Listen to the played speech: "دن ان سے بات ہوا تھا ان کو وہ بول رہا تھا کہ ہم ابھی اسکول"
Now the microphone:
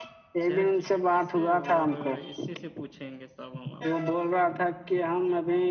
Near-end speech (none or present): present